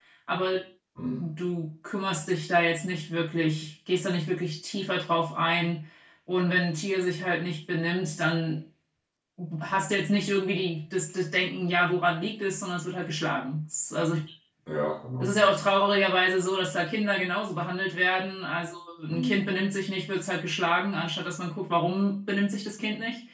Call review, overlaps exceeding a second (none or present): none